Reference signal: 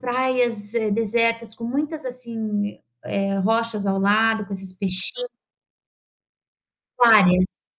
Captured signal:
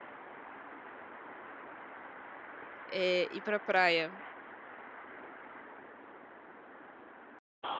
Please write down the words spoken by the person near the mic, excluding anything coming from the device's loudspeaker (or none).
eh, ir pra praia